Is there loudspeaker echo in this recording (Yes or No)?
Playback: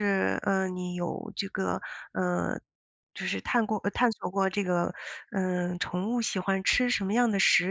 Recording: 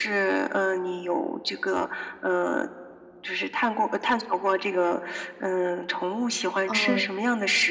Yes